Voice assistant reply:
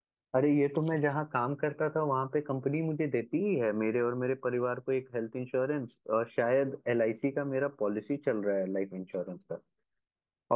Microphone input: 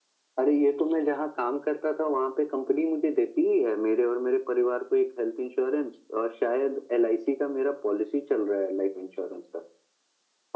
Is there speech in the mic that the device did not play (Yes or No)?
No